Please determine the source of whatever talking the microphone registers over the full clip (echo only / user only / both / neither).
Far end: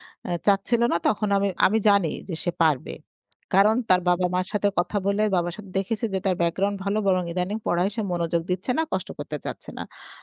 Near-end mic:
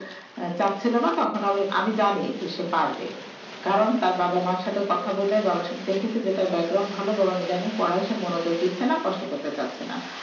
echo only